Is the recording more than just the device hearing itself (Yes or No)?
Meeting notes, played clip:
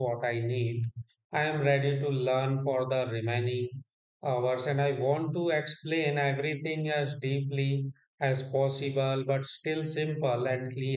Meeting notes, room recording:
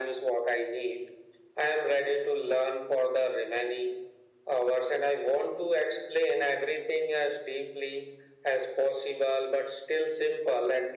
No